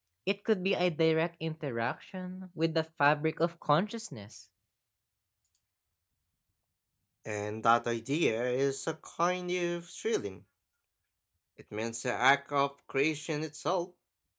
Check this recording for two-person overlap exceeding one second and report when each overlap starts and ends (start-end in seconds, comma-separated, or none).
none